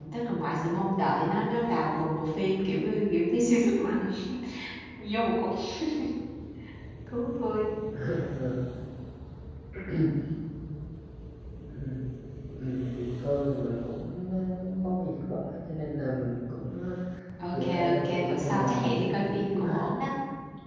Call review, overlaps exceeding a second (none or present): present